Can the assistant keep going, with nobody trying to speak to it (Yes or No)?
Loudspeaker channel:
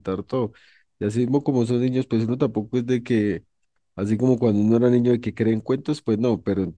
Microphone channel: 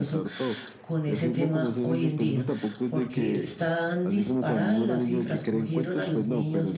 No